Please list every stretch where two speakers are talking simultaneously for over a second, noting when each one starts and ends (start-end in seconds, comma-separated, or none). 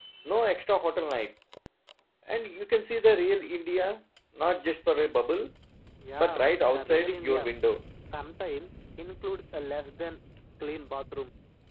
6.2-7.5